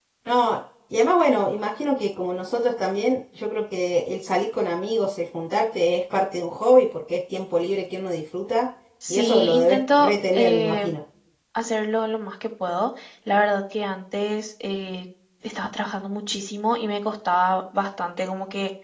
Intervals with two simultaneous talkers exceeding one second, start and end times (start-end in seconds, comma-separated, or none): 9.1-10.9